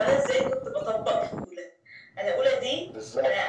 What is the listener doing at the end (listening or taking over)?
listening